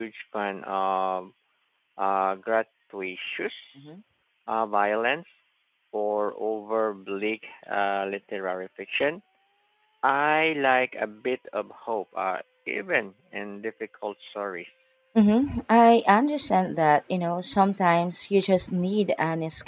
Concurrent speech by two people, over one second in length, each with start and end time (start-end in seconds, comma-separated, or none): none